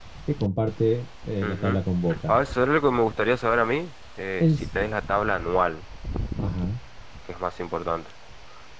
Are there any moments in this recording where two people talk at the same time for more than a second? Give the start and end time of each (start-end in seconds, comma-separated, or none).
none